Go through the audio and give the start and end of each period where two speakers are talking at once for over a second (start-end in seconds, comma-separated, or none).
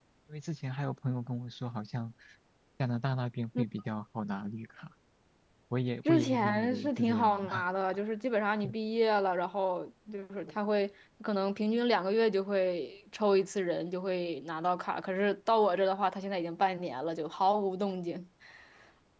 6.1-7.6